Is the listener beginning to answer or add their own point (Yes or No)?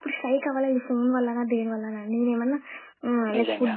No